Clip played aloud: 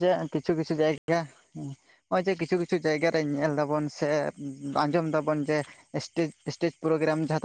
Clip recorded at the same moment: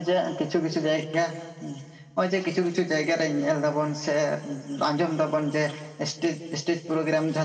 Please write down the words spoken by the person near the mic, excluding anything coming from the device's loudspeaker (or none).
none